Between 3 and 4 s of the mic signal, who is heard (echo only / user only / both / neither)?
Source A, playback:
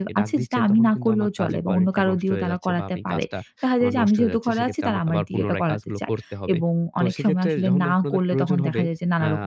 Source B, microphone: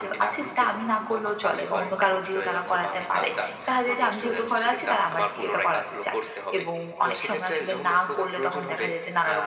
echo only